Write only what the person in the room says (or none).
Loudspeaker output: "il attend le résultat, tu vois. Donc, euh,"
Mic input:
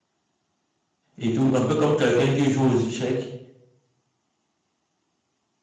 et tout. Un peu comme quelqu'un qui joue aux échecs.